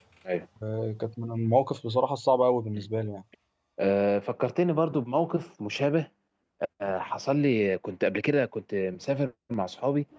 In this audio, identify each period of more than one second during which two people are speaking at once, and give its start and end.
none

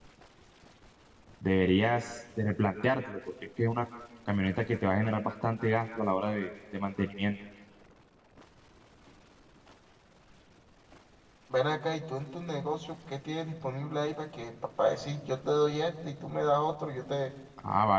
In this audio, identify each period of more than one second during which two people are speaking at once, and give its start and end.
none

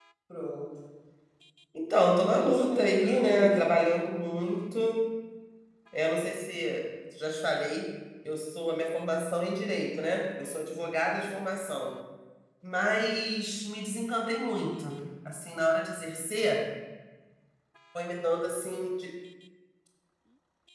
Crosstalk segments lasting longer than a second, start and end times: 2.2-3.6

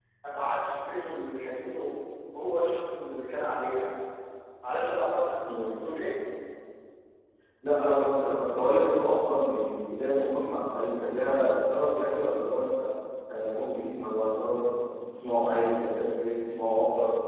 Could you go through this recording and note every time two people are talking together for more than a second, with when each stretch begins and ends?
none

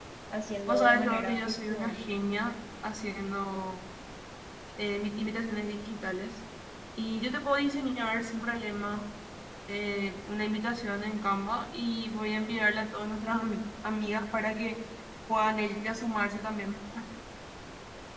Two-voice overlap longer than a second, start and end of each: 0.7-2.0

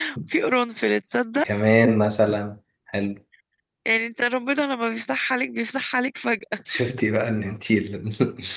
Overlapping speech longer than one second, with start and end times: none

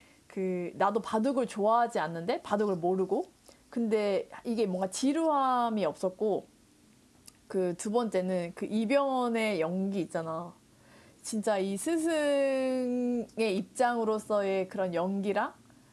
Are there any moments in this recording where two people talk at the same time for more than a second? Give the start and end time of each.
none

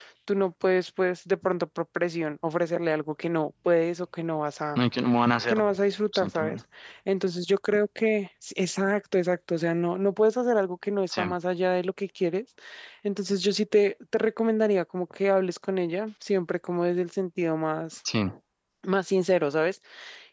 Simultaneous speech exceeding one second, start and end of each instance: none

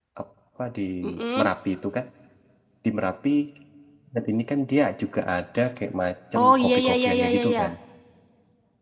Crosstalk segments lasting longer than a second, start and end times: 6.4-7.6

